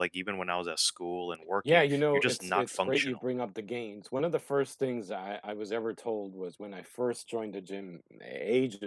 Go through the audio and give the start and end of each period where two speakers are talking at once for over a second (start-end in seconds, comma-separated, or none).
1.7-3.1